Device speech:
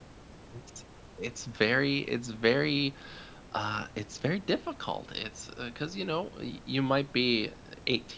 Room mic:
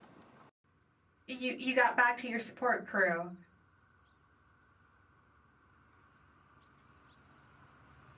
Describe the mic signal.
user only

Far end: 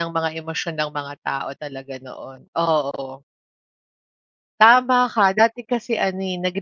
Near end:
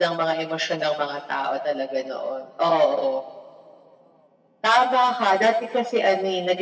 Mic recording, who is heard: echo only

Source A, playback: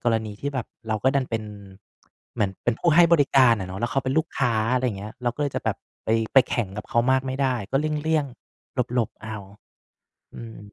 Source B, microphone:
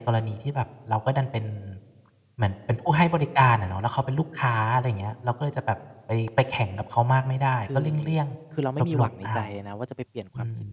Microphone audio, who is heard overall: both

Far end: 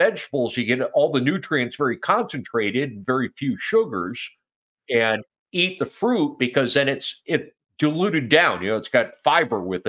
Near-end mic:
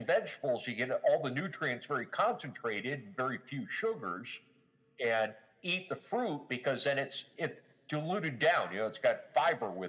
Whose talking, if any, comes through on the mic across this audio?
echo only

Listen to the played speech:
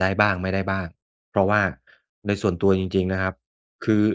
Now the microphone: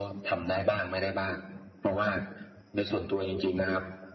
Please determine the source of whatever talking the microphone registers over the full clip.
echo only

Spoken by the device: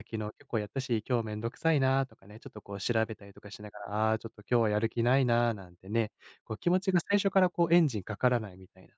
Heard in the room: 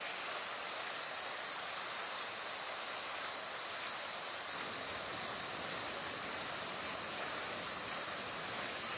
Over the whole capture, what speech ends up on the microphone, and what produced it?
neither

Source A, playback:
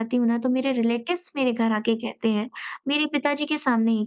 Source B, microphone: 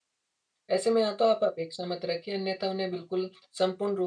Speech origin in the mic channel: user only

